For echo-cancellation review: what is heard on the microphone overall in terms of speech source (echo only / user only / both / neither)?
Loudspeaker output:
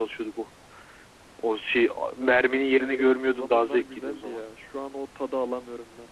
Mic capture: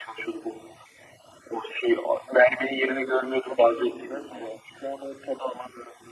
echo only